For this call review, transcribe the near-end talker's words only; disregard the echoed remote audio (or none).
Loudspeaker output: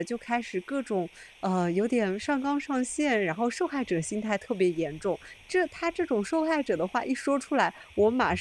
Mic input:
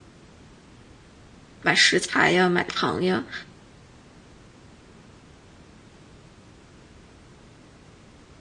买食材呀、买糖呀。